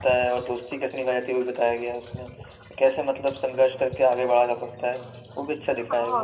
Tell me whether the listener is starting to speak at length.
Yes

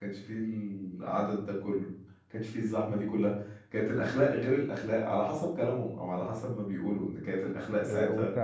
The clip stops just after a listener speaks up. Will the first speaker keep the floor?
No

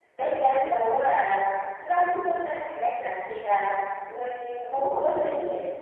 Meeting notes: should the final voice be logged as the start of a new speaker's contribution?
No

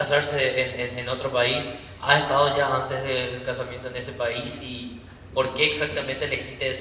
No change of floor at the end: Yes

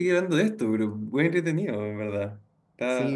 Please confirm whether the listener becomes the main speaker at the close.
Yes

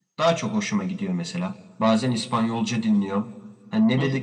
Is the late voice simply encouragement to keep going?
Yes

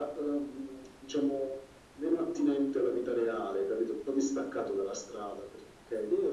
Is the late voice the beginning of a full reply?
Yes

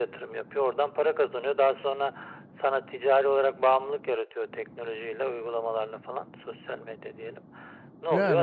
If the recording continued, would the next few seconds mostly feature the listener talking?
No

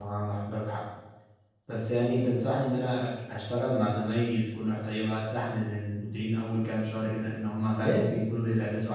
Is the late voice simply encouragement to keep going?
Yes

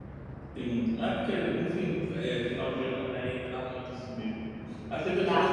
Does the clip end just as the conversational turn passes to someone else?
No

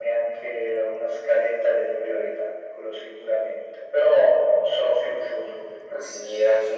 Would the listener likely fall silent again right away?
No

